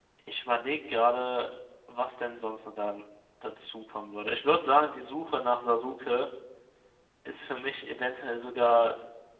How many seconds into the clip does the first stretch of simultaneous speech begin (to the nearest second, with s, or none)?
none